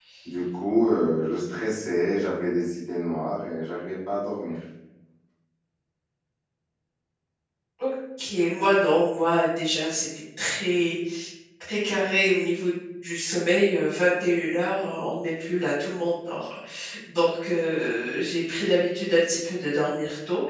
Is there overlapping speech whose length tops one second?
No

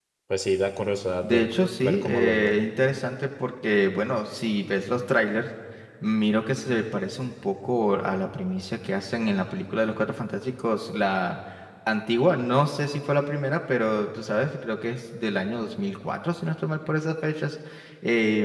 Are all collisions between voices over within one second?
No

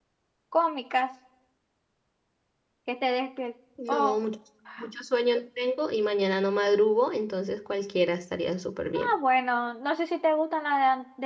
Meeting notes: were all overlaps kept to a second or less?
Yes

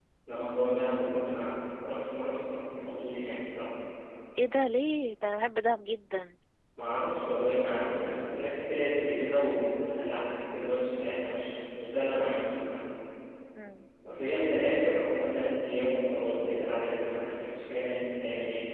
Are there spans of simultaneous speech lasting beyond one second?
No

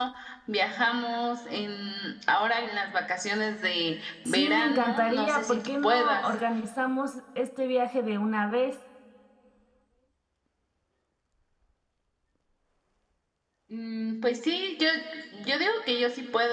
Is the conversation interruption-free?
No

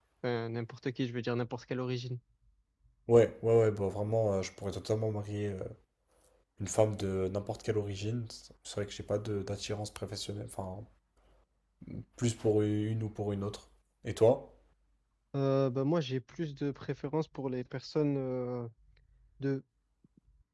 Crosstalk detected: No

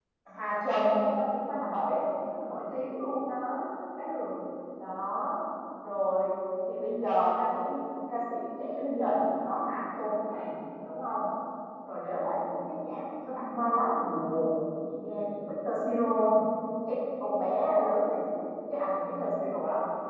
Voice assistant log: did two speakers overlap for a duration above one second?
No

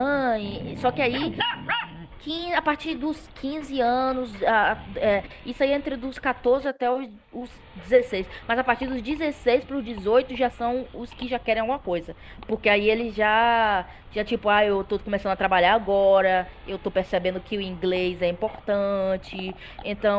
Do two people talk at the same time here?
No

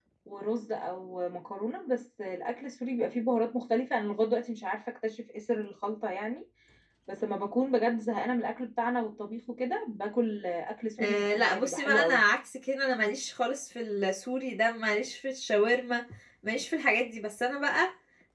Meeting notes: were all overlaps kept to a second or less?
No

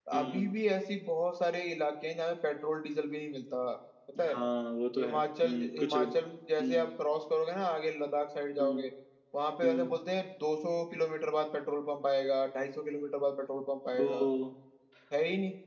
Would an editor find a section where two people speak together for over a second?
Yes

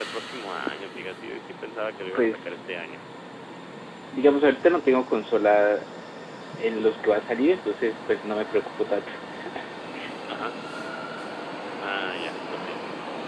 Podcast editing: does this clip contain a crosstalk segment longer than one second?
No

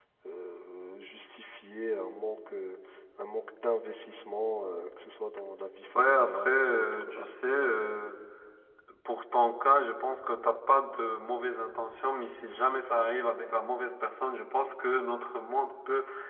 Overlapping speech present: Yes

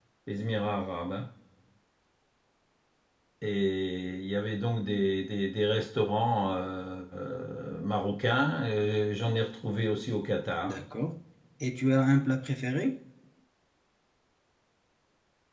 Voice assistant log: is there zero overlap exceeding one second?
Yes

